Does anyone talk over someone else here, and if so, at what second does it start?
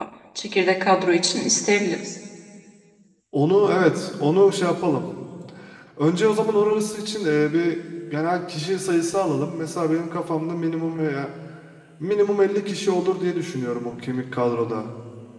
none

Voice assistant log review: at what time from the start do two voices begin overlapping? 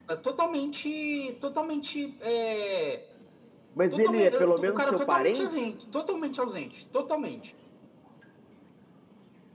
3.9 s

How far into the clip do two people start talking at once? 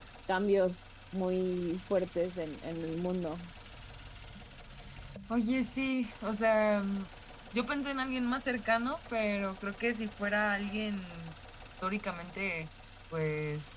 none

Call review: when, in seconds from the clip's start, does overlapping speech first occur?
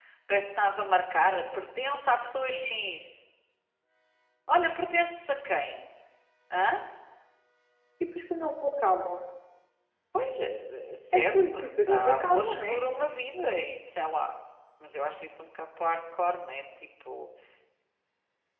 11.1 s

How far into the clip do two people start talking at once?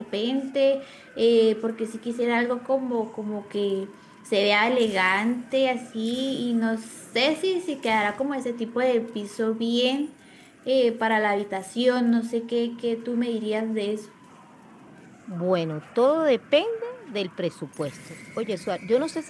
none

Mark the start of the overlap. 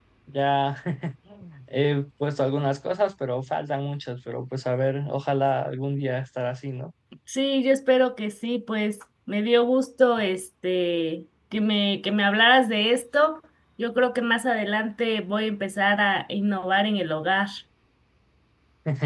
none

